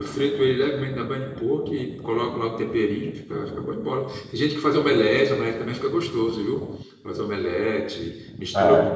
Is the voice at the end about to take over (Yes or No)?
No